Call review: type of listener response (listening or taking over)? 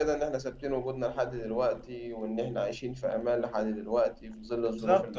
taking over